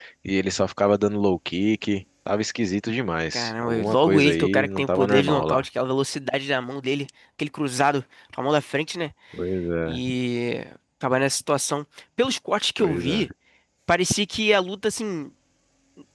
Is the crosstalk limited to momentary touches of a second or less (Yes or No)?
No